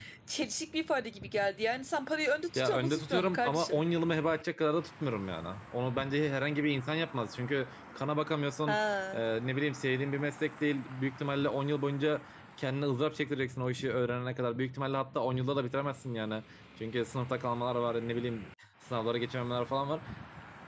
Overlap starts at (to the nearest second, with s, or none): 3 s